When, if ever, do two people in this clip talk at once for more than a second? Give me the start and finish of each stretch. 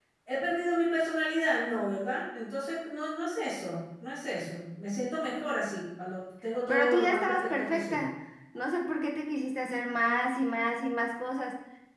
6.7-8.1

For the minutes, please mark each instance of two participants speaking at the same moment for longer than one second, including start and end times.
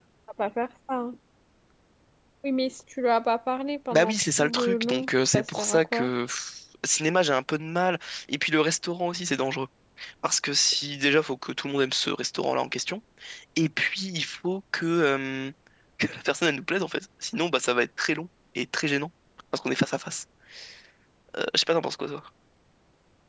3.9-6.1

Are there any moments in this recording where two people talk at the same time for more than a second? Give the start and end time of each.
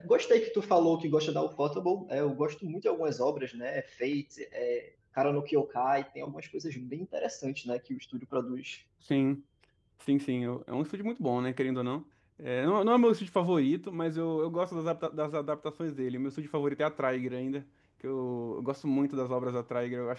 none

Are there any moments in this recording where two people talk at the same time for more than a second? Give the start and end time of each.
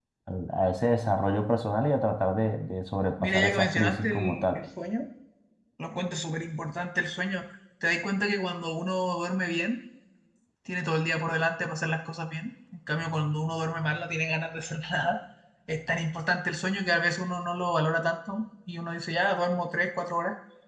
3.2-4.6

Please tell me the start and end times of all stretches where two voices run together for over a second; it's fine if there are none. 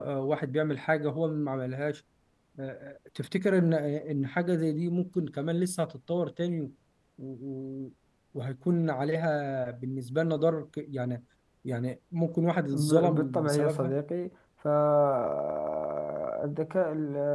12.7-14.0

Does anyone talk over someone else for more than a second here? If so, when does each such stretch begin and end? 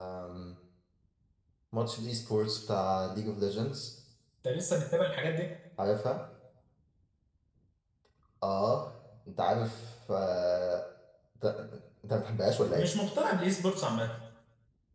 none

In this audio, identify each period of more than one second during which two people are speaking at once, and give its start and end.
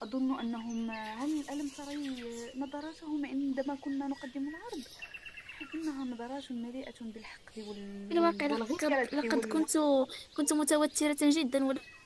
8.1-9.6

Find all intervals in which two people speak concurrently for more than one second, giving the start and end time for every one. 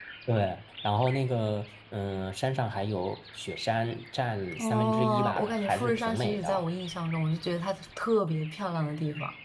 4.6-6.6

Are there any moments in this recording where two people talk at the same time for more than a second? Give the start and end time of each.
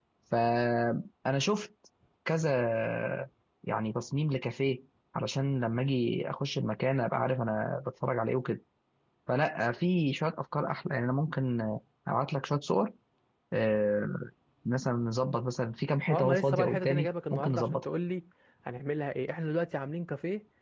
16.1-17.8

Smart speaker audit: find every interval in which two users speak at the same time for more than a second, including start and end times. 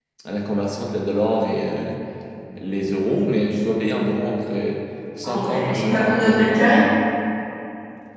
5.2-6.8

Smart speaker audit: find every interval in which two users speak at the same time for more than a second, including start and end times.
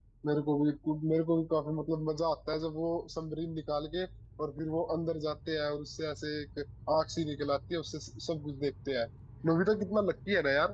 none

